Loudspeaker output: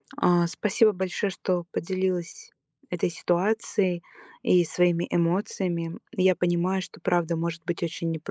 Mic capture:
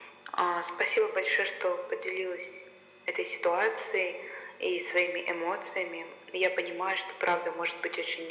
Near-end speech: none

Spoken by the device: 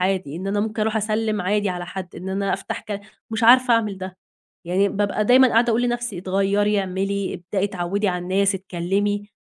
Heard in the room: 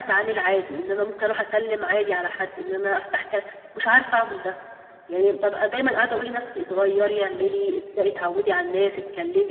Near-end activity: none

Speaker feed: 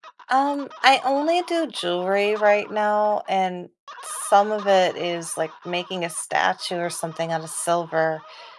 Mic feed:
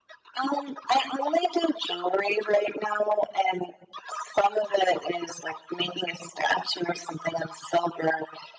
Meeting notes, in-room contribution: none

